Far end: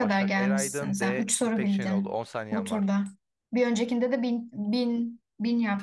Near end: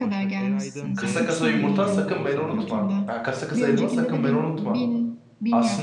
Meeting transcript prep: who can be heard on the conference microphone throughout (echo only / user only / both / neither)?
both